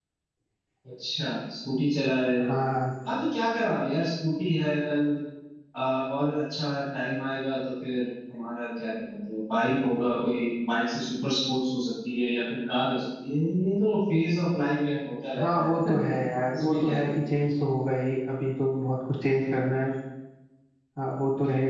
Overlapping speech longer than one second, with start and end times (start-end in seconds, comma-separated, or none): none